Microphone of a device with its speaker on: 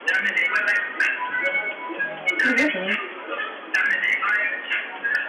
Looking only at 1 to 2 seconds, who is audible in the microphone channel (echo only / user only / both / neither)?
echo only